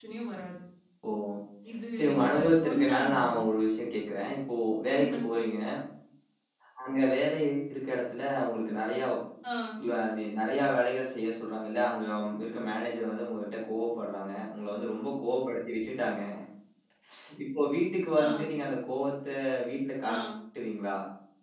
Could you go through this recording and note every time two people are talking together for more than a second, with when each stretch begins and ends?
2.0-3.4

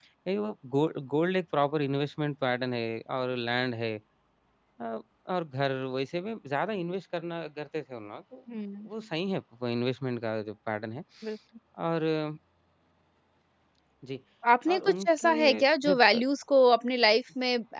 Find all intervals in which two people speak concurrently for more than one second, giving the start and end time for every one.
14.7-16.2

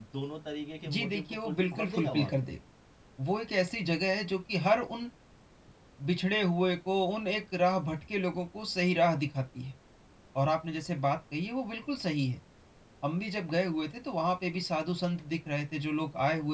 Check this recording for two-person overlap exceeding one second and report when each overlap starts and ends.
0.9-2.3

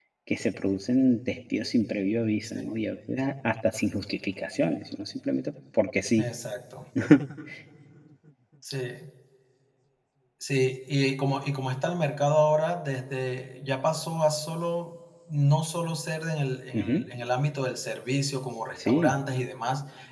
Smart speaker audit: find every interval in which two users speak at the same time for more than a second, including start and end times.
none

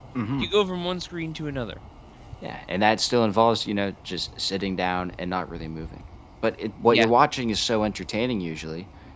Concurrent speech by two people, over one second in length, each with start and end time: none

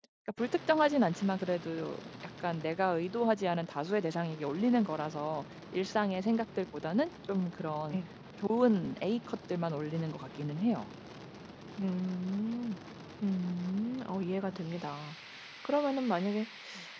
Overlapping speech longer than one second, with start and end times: none

